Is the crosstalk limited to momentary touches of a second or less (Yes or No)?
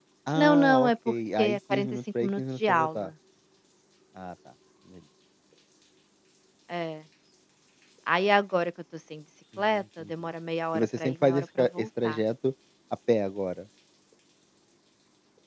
No